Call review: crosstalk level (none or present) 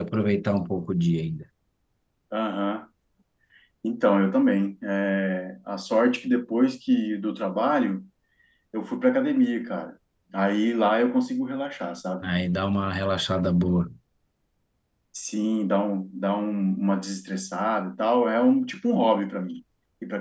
none